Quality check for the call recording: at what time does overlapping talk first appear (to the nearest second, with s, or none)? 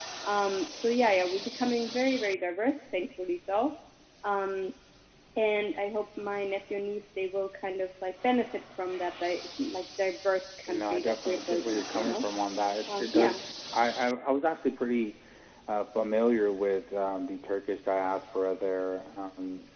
11 s